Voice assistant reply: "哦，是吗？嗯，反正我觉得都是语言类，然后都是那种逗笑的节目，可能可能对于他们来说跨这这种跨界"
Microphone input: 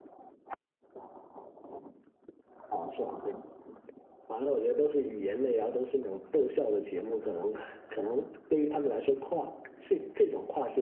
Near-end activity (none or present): none